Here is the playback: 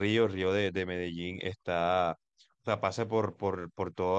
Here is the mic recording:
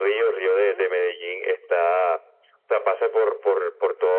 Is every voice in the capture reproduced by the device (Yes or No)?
No